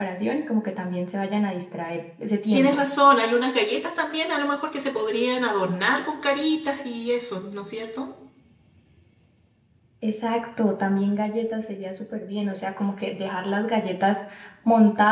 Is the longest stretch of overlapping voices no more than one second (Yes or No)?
Yes